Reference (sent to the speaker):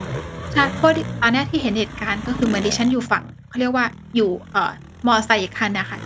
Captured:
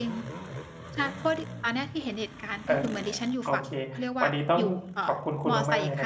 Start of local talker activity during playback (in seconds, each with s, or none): 2.6 s